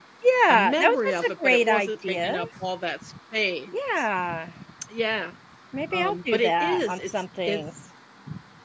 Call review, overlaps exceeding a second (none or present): present